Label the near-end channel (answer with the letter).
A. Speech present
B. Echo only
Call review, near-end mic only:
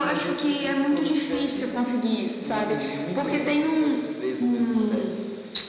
B